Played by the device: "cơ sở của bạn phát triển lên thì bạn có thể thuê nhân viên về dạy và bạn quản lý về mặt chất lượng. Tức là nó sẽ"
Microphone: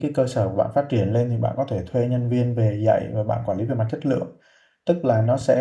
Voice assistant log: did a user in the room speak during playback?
No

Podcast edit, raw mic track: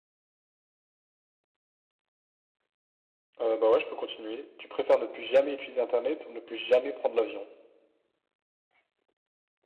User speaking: Yes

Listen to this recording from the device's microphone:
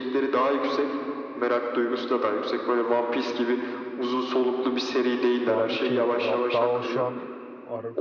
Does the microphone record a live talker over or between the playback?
Yes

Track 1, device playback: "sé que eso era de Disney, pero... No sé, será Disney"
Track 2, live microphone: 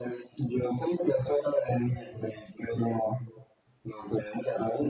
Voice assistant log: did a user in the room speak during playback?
No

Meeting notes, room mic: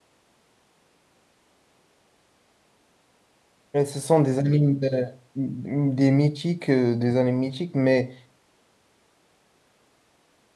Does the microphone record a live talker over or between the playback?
Yes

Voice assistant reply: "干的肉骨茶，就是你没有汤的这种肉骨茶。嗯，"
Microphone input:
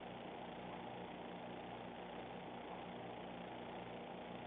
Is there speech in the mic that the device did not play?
No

